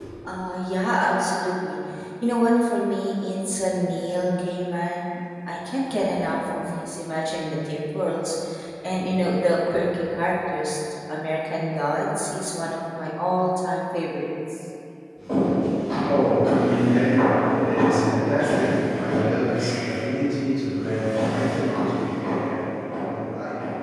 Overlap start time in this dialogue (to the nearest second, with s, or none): none